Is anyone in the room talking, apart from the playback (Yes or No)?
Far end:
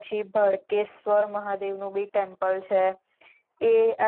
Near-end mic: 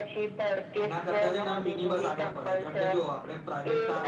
Yes